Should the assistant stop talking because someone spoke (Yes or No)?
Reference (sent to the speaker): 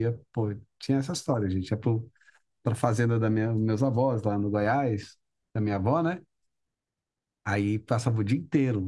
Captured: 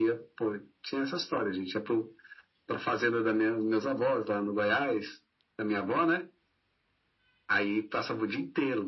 No